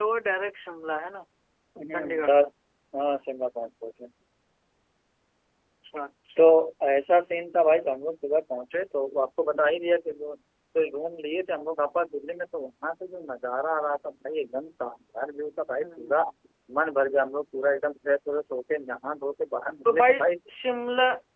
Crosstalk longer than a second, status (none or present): none